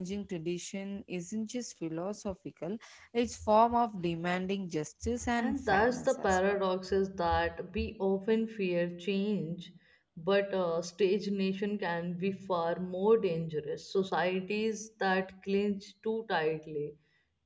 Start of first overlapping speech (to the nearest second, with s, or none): 5 s